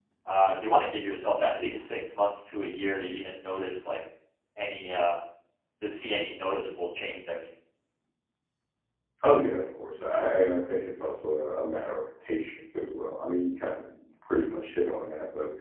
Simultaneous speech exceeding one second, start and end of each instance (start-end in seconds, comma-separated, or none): none